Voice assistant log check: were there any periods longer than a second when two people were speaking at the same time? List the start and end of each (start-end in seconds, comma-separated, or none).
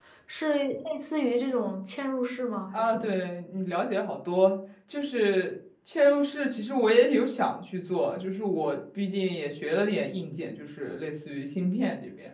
none